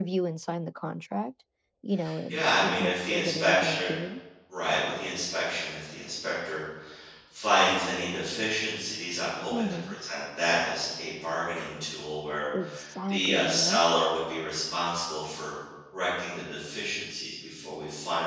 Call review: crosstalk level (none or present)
present